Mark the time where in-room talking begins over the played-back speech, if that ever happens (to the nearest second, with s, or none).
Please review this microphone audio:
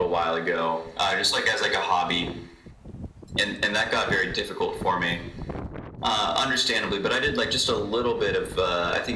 none